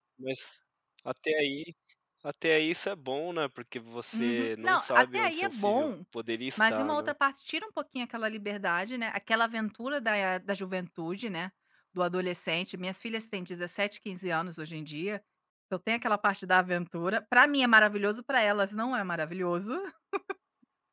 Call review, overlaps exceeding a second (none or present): present